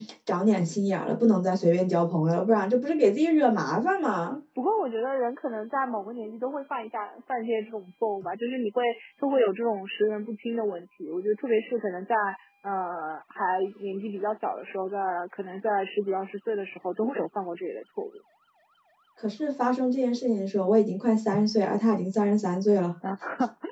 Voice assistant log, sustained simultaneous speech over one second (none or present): none